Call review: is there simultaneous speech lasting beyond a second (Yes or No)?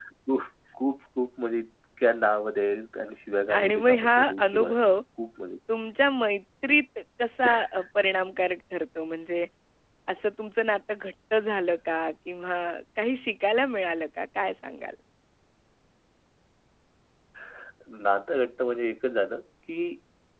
Yes